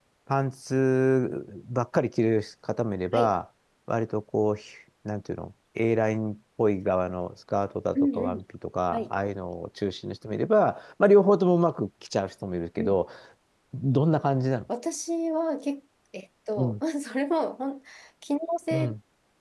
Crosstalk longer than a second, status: none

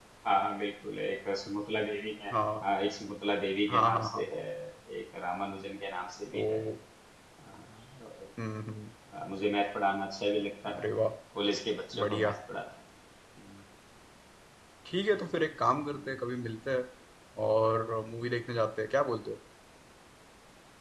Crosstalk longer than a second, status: none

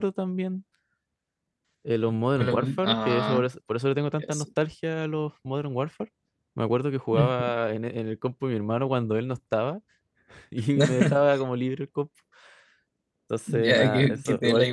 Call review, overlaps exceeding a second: present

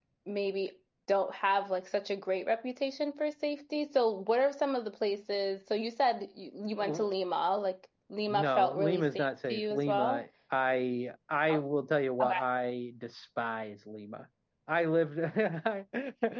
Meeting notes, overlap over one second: present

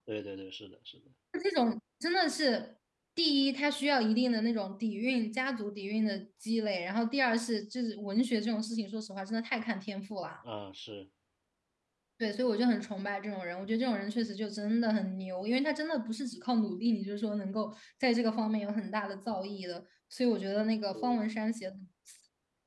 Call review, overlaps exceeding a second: none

